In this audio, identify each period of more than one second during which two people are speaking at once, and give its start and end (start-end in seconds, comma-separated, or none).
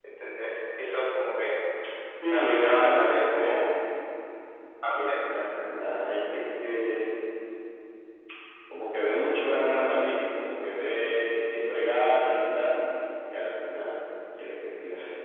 2.3-3.6